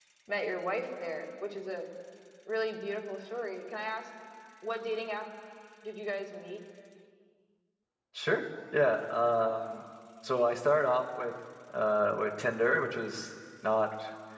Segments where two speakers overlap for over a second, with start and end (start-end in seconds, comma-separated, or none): none